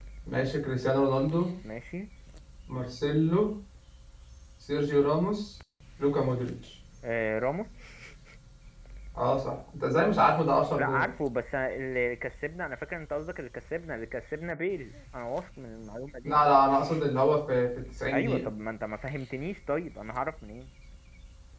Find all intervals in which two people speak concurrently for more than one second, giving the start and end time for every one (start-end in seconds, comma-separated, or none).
none